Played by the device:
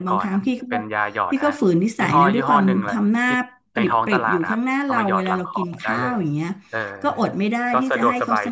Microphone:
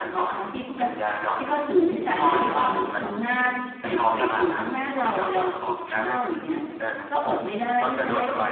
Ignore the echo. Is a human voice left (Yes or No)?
No